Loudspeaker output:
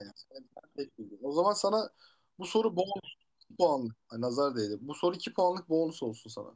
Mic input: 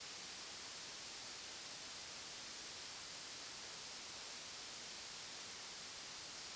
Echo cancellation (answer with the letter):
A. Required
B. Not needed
B